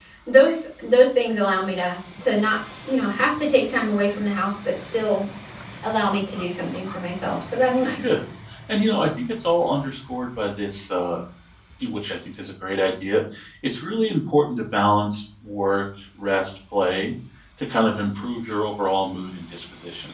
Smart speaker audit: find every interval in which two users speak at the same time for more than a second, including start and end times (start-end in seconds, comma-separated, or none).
none